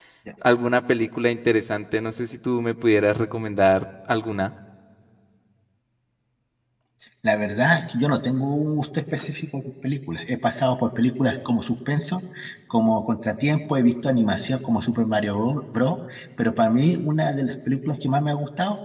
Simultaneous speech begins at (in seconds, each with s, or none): none